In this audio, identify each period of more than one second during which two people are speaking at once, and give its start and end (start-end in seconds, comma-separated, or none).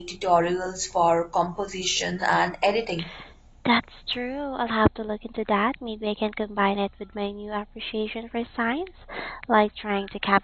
none